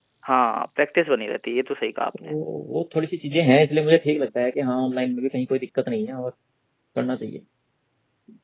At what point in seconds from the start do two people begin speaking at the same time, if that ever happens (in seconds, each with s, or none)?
none